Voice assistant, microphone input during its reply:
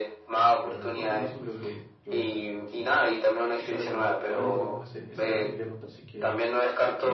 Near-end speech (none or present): present